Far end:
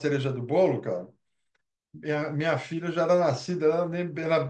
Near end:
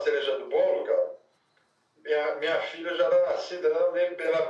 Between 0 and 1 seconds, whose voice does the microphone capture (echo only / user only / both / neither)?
echo only